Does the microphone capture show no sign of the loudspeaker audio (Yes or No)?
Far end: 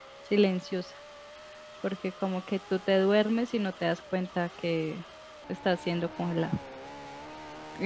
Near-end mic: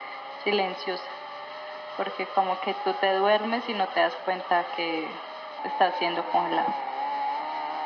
No